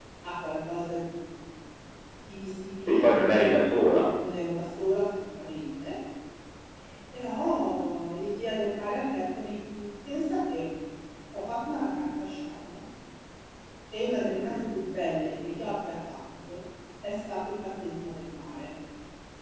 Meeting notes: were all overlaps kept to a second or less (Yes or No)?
Yes